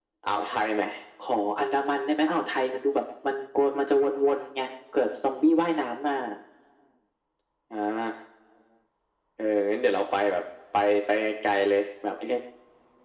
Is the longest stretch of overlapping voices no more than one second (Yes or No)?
Yes